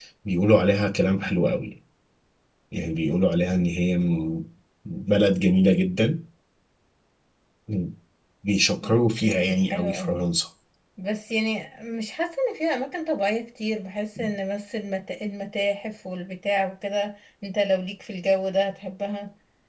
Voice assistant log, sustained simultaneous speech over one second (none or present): present